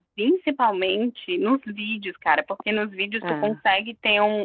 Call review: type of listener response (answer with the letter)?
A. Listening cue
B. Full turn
A